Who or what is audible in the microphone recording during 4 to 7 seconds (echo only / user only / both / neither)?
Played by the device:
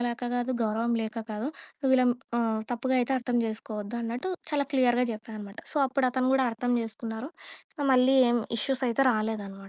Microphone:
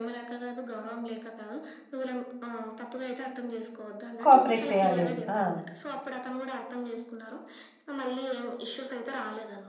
both